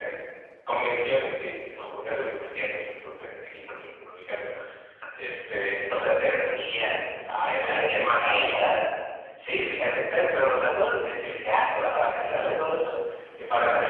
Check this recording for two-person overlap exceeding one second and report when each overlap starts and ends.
7.4-8.6

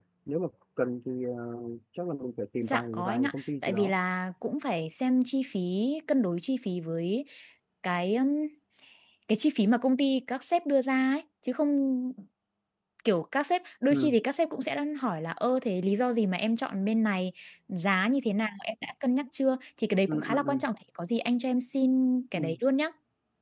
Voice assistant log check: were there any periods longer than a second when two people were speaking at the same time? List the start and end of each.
2.6-3.9

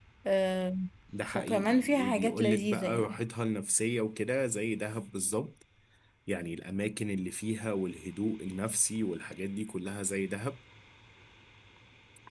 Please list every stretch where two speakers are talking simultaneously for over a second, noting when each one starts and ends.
1.4-3.1

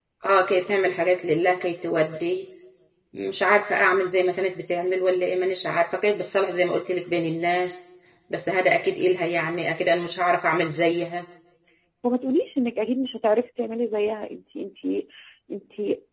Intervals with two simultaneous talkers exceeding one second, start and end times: none

